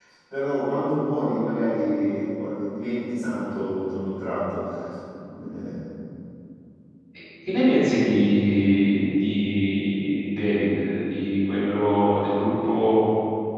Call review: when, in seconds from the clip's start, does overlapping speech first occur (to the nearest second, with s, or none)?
none